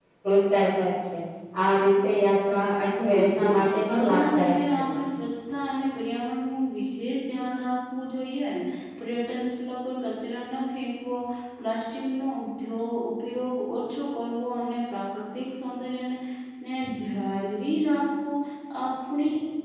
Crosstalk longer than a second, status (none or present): present